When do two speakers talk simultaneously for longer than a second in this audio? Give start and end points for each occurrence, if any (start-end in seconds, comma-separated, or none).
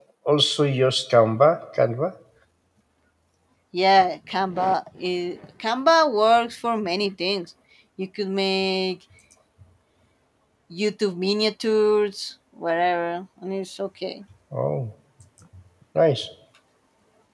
none